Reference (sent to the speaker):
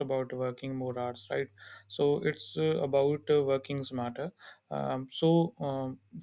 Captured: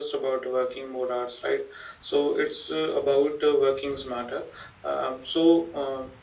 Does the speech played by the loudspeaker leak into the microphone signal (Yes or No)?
Yes